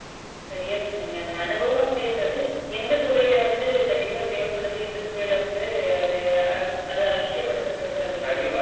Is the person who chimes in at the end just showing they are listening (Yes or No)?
No